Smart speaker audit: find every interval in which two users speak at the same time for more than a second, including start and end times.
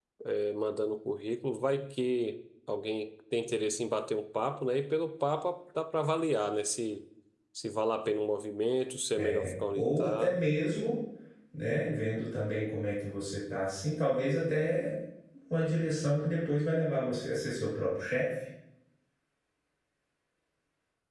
9.1-10.4

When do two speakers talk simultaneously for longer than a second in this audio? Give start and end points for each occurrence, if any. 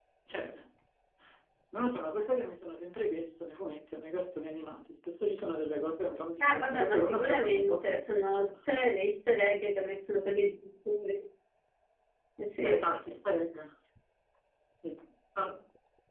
6.4-8.4

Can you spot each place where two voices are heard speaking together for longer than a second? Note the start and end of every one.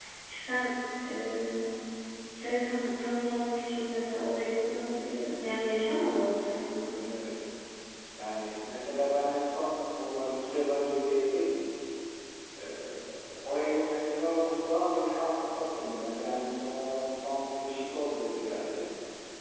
none

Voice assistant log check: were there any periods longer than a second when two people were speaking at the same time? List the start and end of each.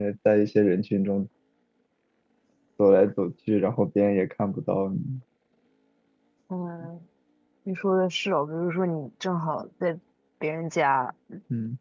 none

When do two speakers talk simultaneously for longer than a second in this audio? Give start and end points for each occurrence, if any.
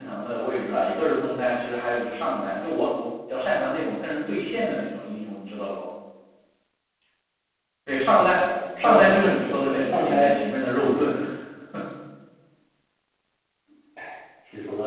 8.8-10.3

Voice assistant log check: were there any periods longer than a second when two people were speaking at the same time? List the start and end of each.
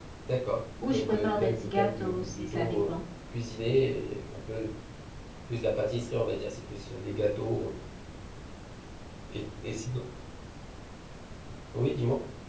0.9-2.9

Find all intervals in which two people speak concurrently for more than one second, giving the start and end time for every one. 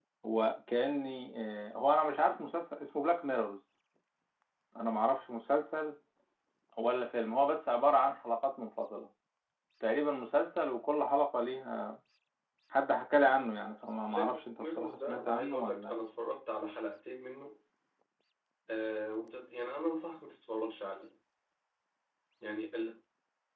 14.1-16.0

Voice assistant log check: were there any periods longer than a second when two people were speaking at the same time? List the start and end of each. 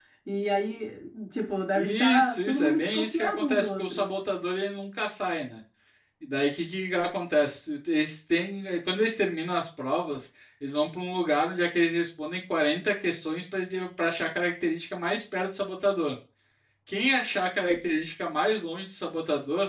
1.8-4.1

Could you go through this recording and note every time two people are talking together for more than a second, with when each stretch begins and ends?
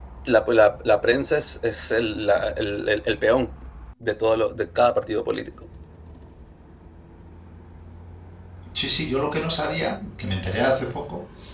none

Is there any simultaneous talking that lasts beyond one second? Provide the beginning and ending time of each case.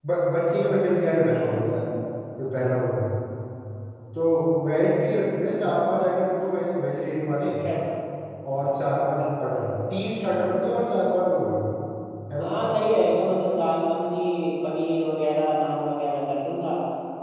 none

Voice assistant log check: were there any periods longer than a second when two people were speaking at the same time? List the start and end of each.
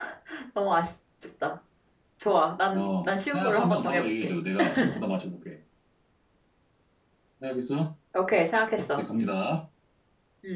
2.7-4.3

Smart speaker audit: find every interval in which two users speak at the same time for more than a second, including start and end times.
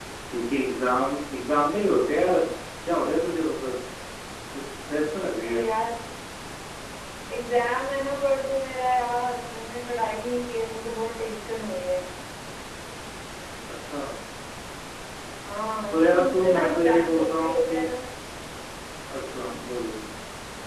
15.9-17.8

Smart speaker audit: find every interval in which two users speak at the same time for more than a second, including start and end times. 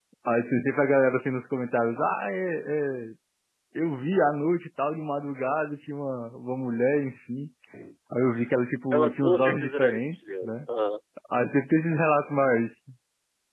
8.9-10.5

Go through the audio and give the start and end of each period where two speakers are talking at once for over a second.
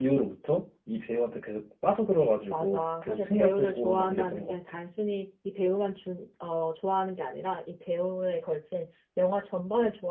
2.5-4.5

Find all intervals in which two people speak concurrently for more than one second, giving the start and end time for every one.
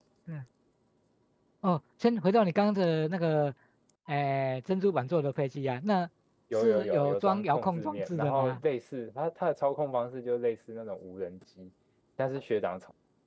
6.6-8.6

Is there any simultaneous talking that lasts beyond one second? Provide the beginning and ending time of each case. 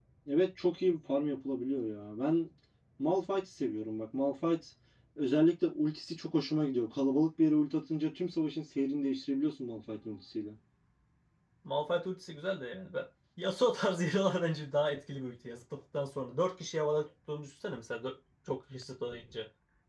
none

